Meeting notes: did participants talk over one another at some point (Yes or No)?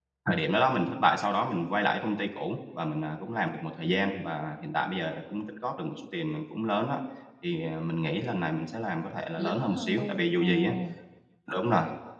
Yes